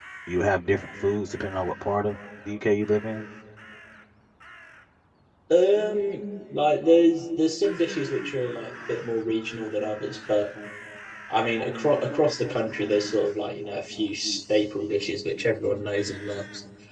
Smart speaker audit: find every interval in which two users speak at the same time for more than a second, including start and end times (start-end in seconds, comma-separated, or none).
none